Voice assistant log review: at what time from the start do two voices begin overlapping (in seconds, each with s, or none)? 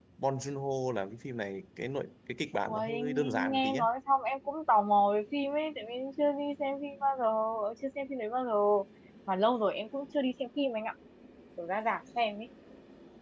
2.6 s